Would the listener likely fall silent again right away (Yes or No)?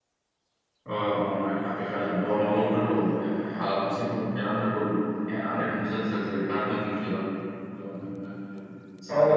No